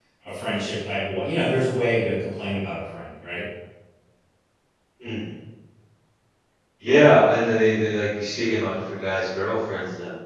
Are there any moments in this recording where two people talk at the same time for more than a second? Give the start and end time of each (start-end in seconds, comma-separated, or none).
none